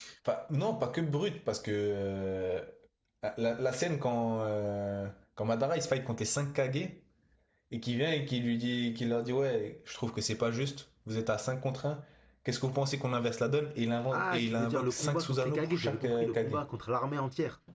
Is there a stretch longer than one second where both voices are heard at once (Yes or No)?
Yes